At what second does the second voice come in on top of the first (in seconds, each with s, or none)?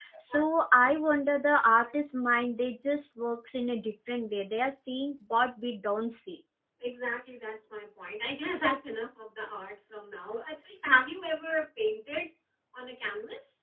none